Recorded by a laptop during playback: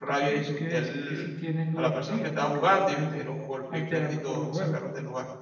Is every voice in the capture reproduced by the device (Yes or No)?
No